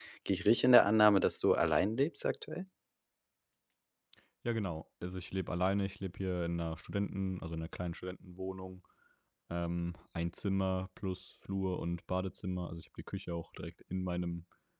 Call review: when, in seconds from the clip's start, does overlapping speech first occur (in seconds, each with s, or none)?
none